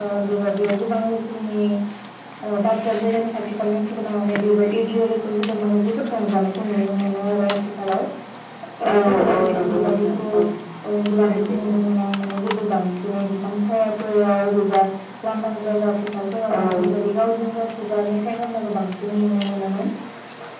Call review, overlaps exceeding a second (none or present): present